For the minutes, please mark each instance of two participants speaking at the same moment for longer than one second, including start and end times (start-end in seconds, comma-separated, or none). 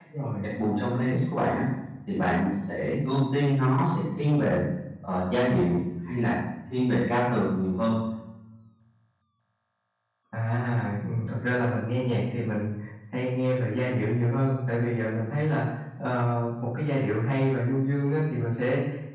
none